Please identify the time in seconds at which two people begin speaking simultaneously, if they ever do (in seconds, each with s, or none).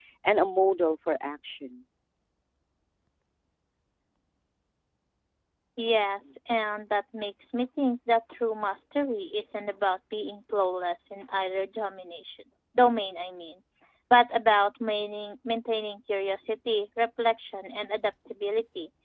none